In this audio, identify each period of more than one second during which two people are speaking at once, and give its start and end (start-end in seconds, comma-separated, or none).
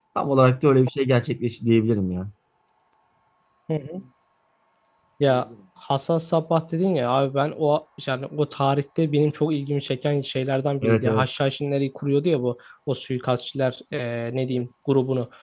none